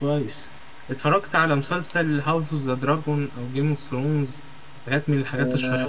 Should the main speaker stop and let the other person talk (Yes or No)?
Yes